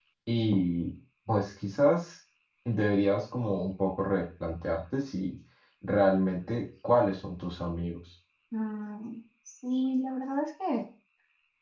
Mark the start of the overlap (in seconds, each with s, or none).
none